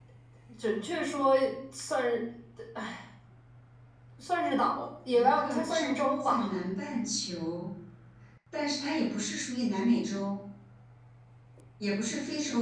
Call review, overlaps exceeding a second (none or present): present